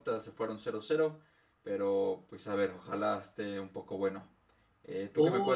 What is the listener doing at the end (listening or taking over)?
taking over